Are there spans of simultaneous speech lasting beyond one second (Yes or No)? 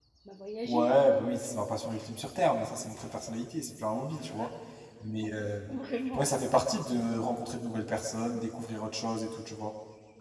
No